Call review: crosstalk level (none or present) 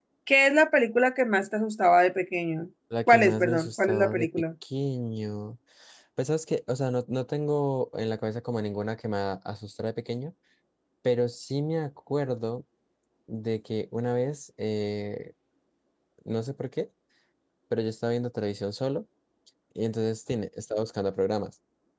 present